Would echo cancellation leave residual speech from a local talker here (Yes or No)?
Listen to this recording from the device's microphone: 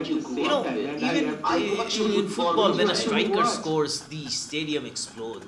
Yes